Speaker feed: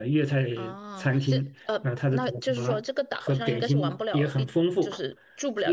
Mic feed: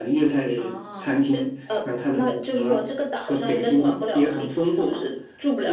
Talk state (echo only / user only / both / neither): echo only